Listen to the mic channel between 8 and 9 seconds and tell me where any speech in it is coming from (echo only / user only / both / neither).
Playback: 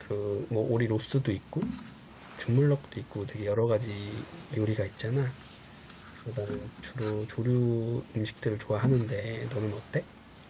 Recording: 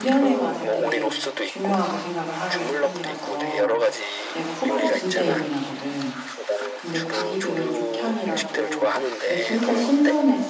both